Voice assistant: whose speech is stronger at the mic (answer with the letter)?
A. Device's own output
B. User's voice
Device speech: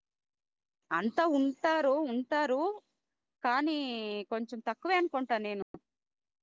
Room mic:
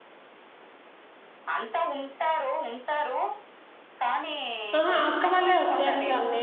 B